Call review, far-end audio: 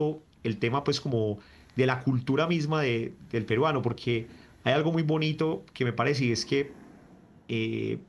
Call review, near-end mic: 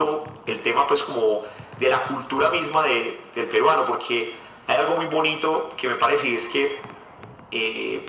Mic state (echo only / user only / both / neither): echo only